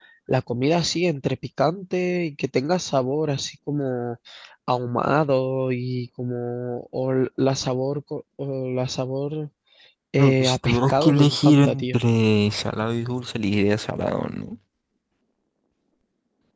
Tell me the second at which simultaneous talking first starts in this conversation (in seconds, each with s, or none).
10.2 s